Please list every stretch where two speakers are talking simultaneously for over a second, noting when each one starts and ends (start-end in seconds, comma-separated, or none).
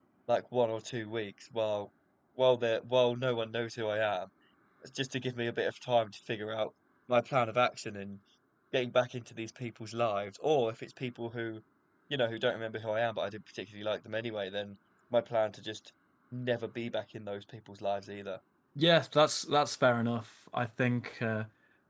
none